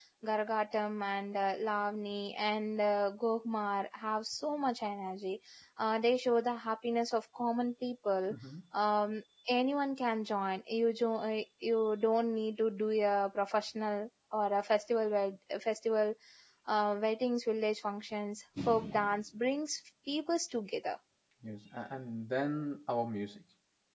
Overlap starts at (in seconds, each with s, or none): none